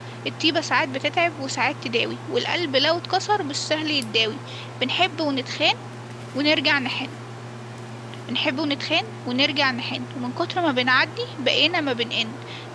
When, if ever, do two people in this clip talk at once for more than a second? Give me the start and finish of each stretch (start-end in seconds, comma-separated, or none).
none